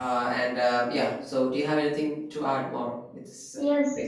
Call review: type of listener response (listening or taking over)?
taking over